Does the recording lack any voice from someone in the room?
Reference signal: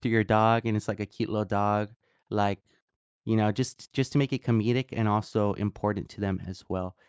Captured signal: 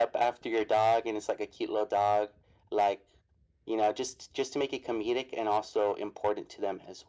Yes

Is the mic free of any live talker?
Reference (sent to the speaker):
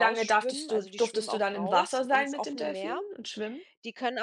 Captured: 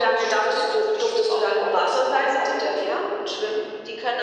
Yes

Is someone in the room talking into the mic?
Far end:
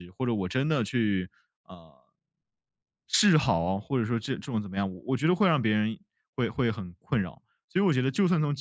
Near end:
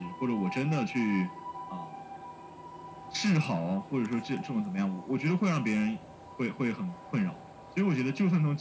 No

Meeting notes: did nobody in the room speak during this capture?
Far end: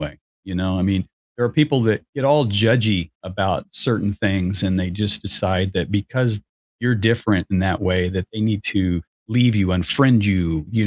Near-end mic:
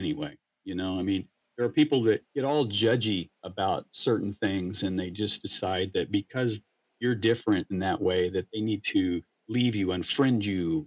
Yes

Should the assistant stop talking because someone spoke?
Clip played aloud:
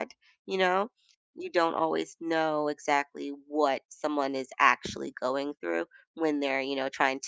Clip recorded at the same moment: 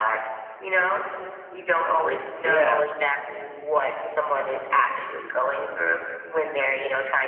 Yes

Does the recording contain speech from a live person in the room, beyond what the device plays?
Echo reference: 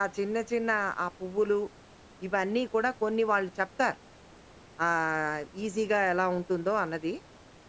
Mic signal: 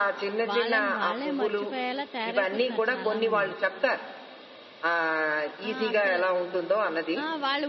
Yes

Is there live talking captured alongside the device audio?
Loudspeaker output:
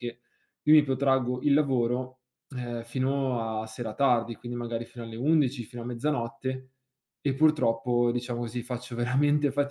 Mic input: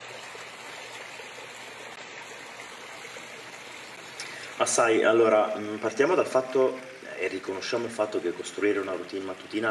Yes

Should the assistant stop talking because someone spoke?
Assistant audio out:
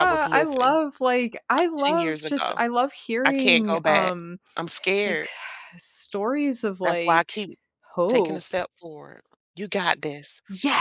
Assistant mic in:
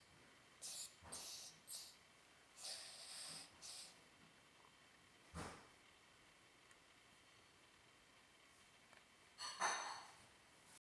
No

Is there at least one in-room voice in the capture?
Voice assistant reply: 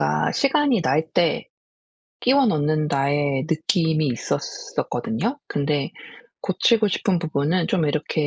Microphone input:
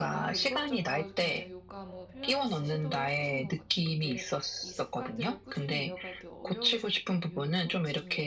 Yes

